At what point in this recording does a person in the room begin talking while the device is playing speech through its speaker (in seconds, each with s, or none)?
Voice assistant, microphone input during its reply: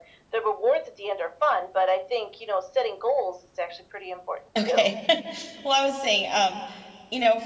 4.6 s